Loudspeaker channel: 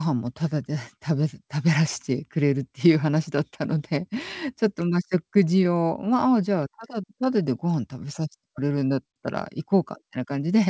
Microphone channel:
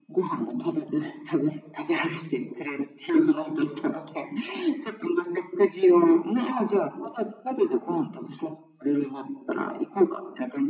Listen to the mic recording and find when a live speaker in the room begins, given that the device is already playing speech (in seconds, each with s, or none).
none